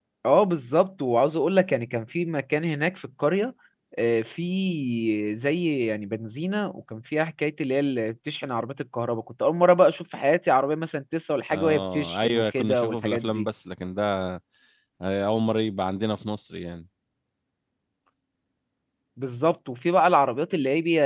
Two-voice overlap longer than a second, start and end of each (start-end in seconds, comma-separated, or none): 11.5-13.5